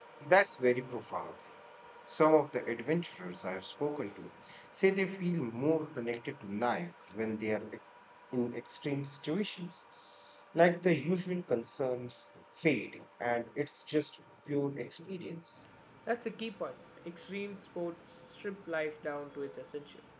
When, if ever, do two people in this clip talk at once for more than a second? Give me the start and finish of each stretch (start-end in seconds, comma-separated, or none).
none